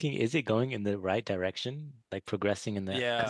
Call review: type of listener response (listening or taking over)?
taking over